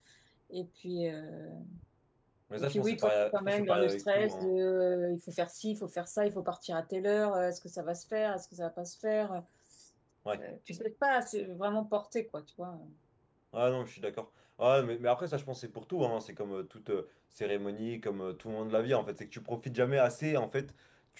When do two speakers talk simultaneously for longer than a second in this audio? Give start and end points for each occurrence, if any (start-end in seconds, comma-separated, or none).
2.6-4.5